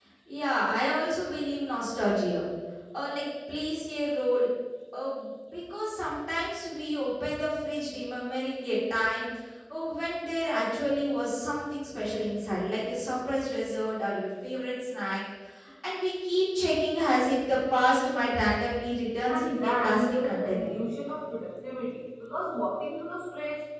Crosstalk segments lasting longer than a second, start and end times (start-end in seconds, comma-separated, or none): 19.3-20.7